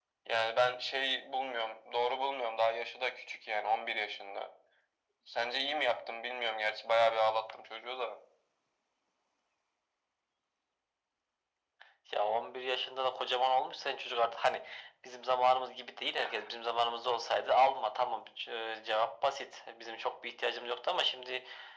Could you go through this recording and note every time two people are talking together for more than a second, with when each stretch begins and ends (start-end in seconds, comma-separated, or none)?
none